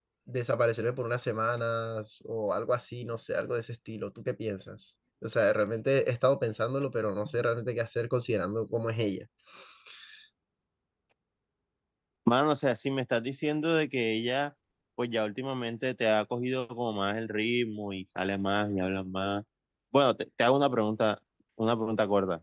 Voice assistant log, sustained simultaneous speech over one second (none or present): none